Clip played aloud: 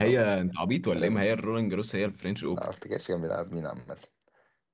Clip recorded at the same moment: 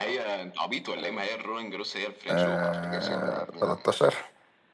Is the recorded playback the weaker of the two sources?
Yes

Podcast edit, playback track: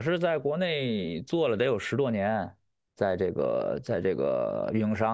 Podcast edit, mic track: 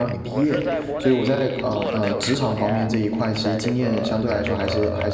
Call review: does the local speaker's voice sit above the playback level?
Yes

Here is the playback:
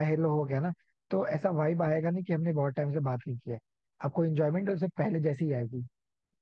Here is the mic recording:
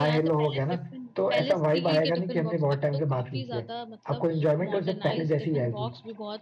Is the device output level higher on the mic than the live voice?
Yes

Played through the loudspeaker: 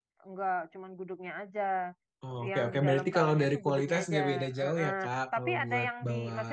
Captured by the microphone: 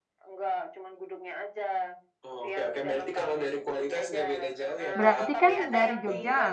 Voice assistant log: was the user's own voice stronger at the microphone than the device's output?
Yes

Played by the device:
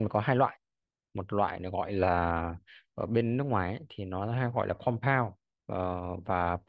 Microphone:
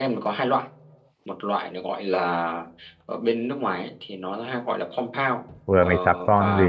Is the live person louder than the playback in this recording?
Yes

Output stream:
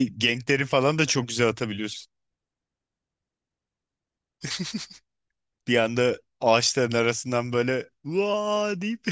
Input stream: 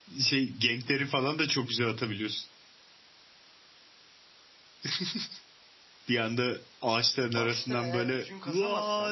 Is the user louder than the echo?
No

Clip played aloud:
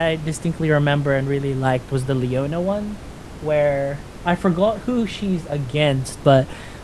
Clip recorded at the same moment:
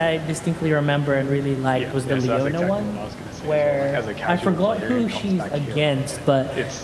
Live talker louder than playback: No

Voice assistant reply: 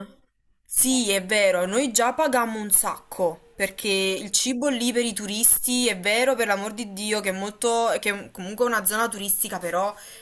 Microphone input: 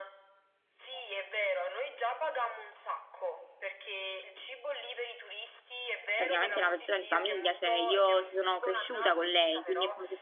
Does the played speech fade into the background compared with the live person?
Yes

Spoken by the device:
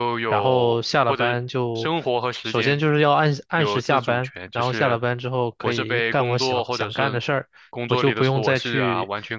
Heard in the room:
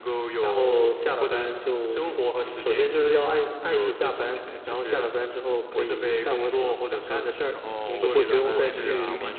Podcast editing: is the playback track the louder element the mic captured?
Yes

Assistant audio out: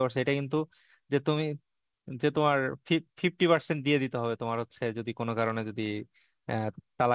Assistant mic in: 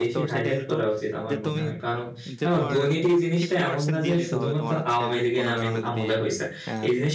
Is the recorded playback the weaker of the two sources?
Yes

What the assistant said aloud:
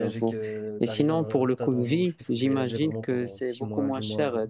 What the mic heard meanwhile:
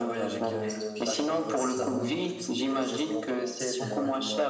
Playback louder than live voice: Yes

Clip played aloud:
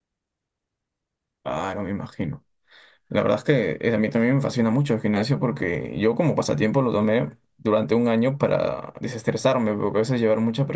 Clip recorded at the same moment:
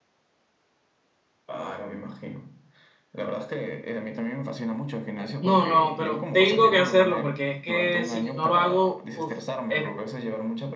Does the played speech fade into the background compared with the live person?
Yes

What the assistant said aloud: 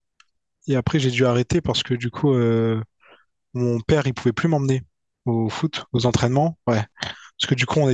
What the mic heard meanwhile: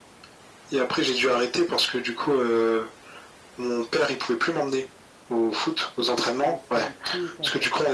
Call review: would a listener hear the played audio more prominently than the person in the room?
Yes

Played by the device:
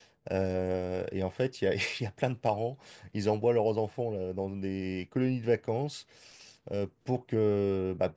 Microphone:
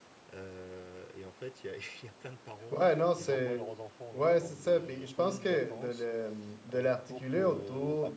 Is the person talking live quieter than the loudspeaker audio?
No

